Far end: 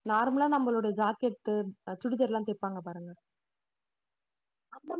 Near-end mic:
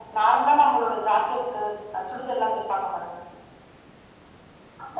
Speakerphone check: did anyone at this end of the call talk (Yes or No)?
No